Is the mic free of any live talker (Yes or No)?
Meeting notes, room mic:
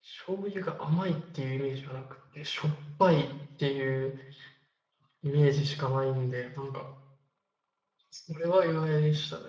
No